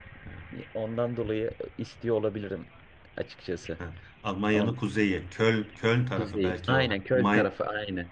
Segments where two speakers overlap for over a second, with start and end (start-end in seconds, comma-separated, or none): 6.2-7.5